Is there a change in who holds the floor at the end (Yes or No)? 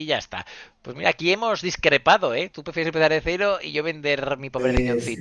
Yes